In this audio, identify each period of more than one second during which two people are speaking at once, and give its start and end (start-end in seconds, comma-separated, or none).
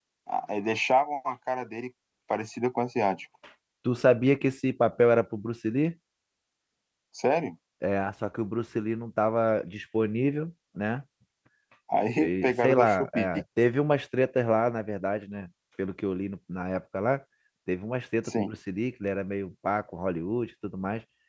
12.2-13.4